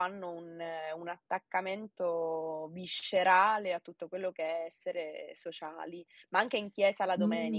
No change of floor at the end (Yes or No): No